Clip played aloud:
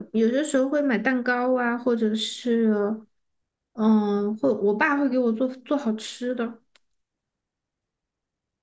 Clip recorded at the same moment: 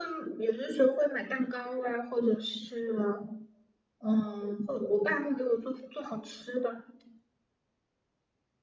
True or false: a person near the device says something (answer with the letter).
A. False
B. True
A